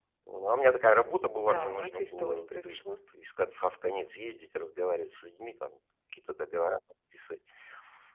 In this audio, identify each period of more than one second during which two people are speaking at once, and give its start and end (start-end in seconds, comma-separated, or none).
1.5-2.8